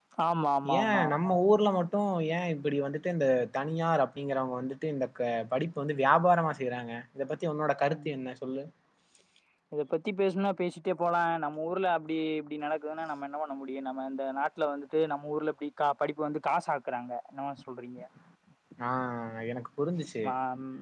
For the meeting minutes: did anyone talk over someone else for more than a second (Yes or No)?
No